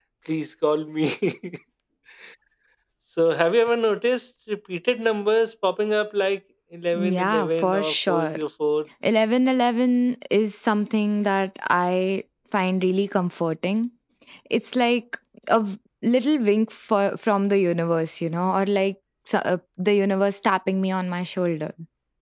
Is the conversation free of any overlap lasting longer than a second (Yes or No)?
No